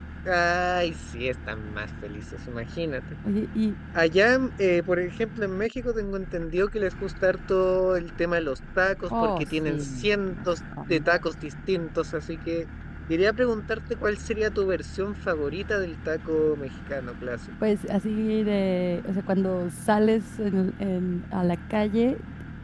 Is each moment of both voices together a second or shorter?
No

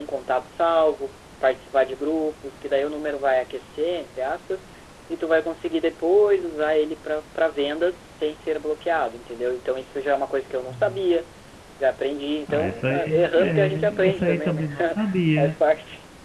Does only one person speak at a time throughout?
No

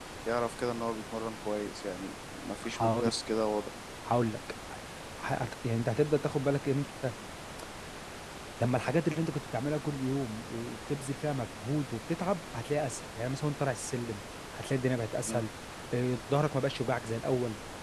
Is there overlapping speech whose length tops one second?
No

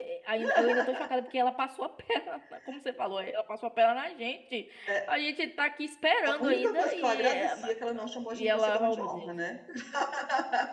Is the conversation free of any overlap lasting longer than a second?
No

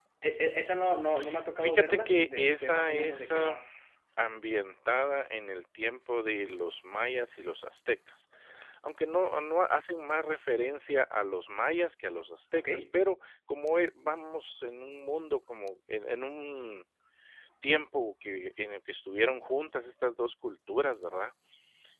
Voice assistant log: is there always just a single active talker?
No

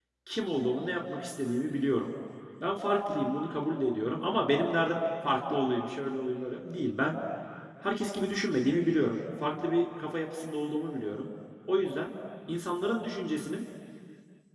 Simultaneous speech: No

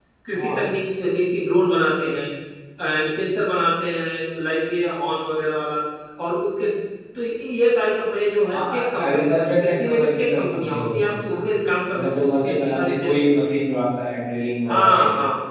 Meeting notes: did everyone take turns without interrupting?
No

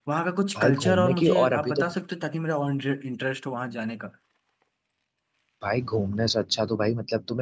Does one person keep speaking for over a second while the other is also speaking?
Yes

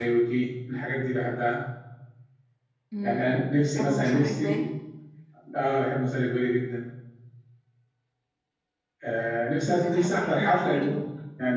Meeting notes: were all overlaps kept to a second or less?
No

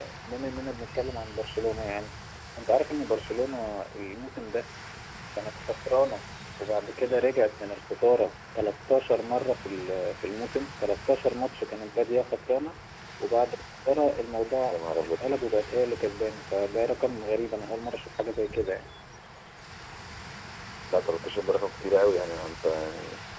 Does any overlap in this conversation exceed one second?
No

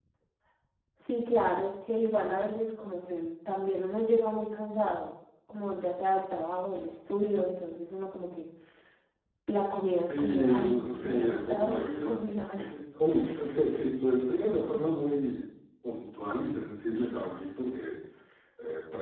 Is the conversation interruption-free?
No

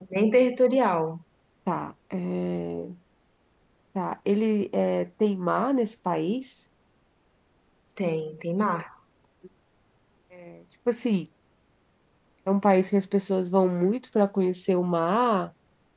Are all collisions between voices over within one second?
Yes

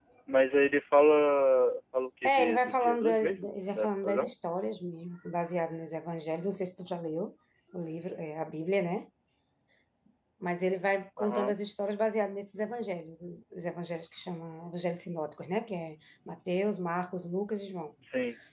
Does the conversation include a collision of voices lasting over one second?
Yes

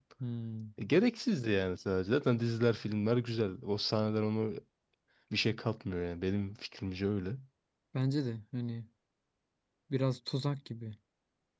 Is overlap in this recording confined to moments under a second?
Yes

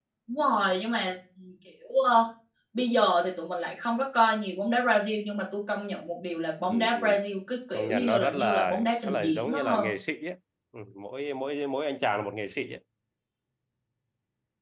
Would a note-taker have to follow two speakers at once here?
Yes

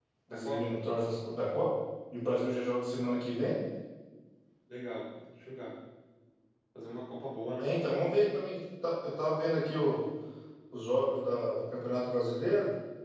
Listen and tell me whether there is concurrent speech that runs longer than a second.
No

